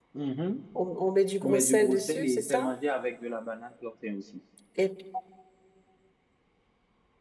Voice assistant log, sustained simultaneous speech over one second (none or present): present